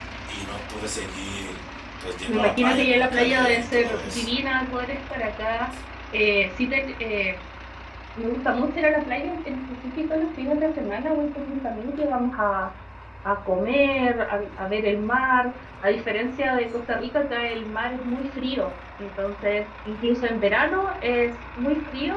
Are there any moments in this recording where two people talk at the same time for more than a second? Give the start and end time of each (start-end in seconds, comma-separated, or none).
2.3-4.3